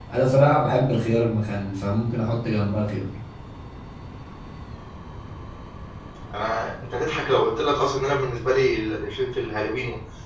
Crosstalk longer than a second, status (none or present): none